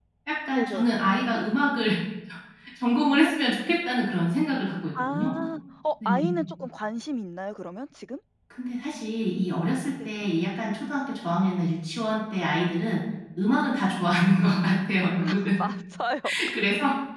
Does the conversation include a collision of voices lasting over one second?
No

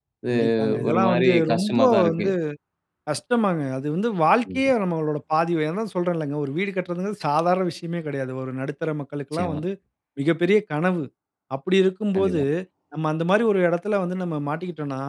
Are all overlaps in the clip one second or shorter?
No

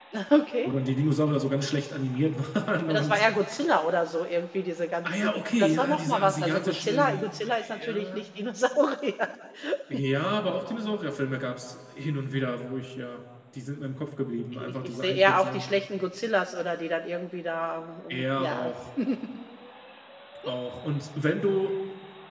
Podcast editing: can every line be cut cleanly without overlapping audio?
No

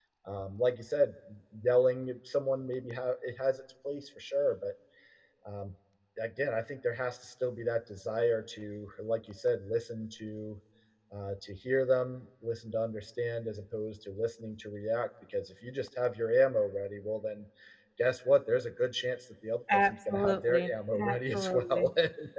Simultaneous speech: Yes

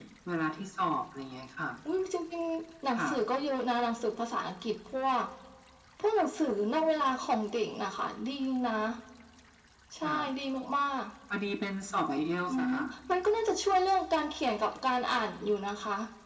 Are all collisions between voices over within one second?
Yes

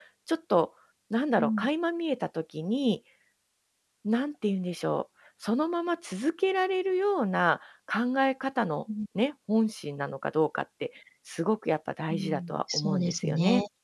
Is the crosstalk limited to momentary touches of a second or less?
No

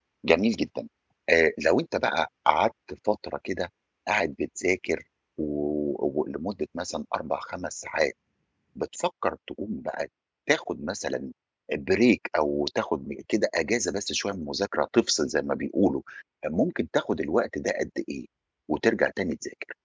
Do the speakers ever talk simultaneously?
No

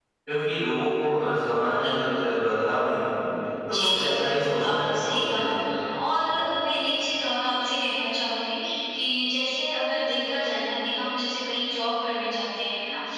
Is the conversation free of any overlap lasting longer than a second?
No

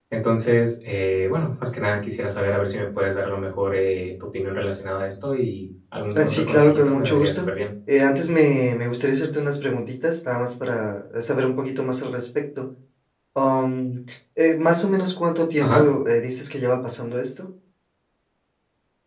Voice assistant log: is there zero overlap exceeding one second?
No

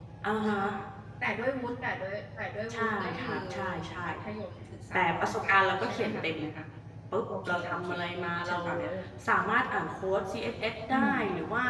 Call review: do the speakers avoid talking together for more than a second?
No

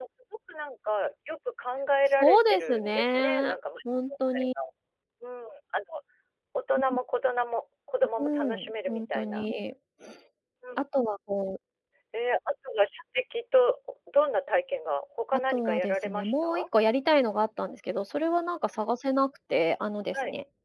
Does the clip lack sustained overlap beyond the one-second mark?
No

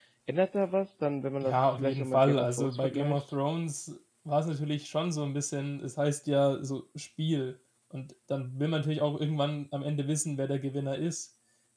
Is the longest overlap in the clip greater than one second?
Yes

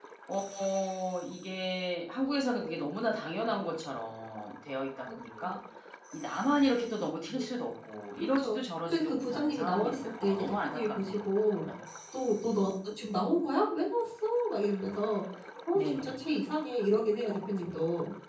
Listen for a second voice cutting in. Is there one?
Yes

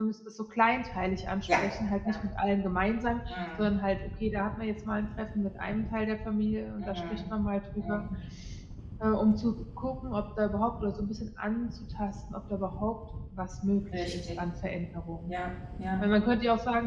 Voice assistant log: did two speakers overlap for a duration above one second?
No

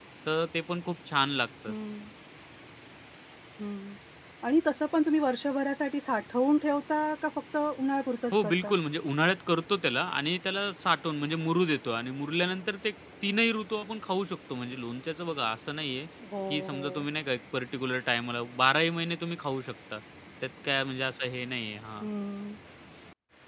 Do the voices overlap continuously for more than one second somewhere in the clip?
No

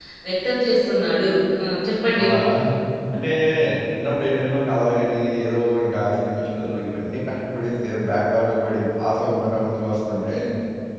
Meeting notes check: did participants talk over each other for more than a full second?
No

